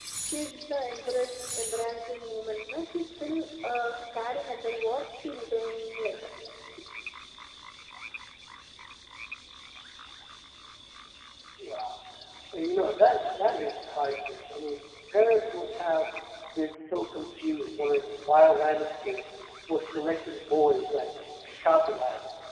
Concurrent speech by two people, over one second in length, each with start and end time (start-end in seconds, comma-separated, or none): none